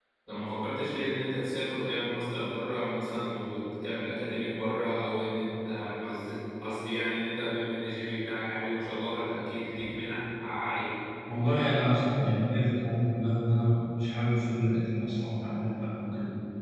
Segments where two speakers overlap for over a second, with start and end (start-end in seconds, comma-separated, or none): none